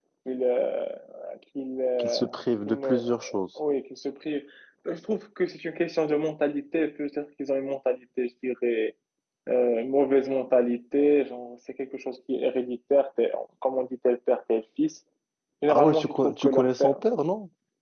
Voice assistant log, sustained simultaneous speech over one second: present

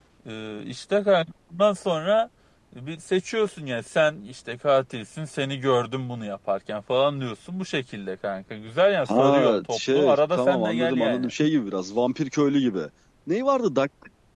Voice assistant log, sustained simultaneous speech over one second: present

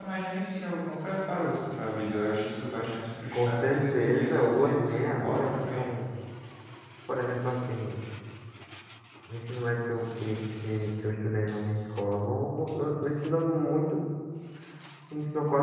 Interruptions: present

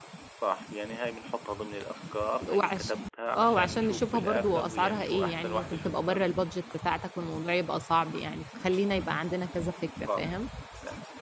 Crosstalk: present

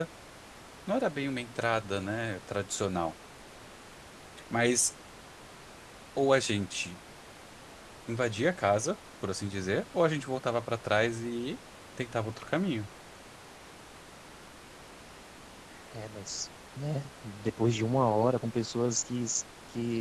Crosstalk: none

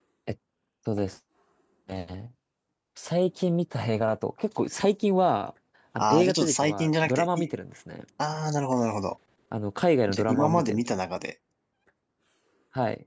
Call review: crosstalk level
present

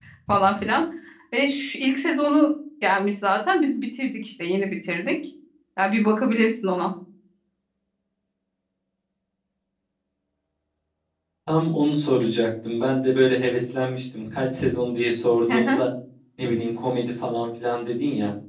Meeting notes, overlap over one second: none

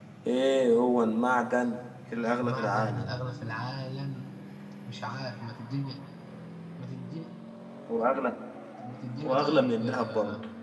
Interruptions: present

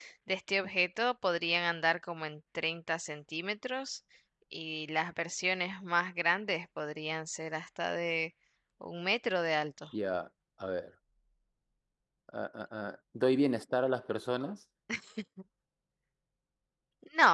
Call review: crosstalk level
none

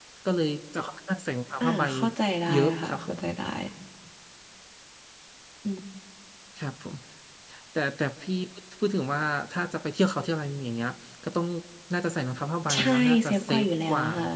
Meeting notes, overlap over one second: present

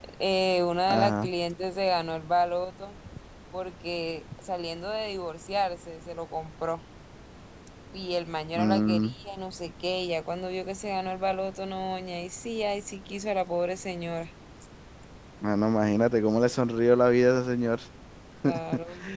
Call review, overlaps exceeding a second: none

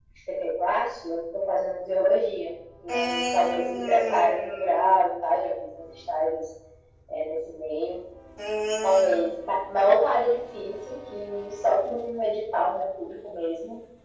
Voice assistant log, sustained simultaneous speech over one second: present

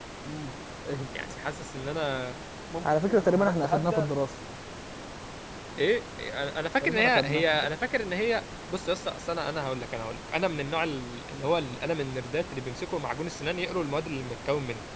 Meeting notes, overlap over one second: present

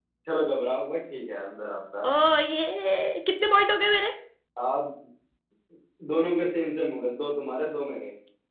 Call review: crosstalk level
none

